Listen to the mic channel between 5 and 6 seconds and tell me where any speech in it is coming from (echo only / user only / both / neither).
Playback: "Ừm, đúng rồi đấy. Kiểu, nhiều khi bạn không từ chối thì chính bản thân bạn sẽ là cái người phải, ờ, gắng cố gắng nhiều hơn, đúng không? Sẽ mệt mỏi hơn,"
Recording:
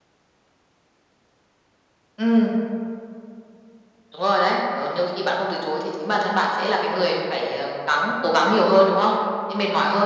echo only